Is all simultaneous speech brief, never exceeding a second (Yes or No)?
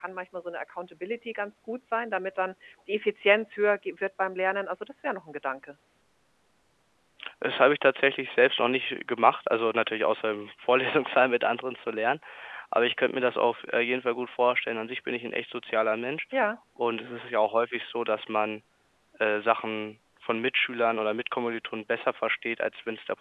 Yes